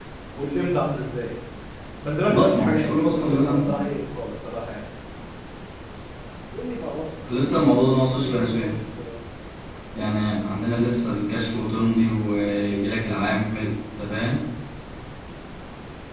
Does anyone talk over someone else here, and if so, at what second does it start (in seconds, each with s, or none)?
2.3 s